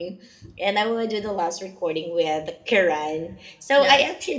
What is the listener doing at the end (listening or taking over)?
listening